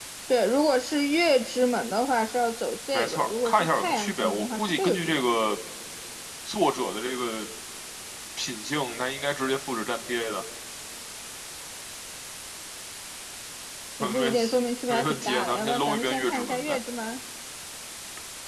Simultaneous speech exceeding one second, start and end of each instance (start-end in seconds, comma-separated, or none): 2.9-5.2, 14.9-16.8